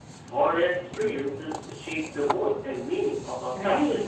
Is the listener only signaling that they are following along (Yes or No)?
No